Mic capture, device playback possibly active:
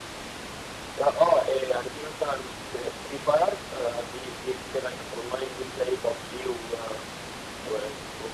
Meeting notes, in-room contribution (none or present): none